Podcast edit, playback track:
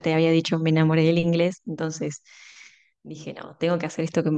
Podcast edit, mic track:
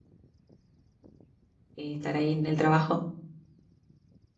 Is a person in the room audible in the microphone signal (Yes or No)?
Yes